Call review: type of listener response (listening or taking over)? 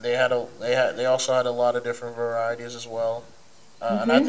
listening